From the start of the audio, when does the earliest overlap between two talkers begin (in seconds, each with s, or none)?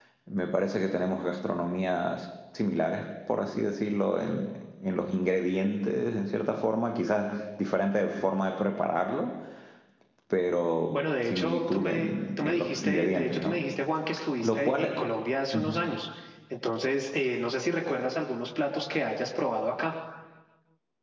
10.9 s